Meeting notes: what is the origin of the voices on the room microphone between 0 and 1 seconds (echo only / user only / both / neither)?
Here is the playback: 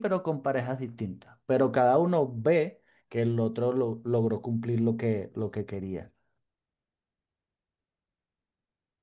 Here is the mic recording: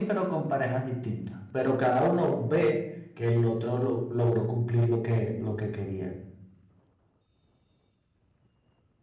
echo only